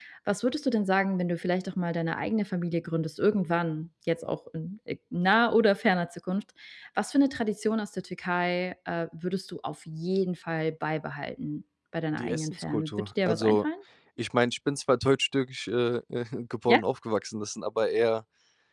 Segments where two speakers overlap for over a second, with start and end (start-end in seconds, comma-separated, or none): 12.1-13.7